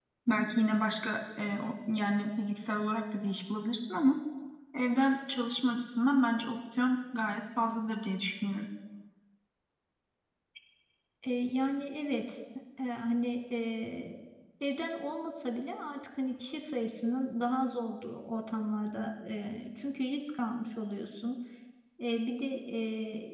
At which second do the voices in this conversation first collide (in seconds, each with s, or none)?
none